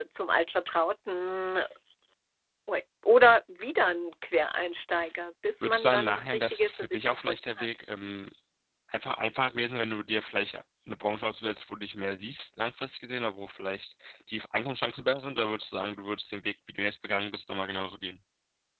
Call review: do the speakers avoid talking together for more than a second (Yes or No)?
No